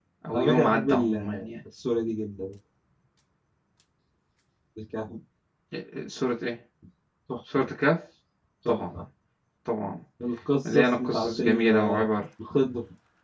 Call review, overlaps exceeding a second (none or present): present